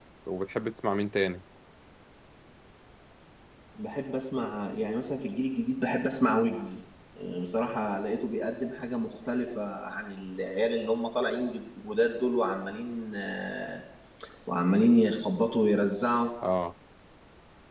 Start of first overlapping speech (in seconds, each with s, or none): none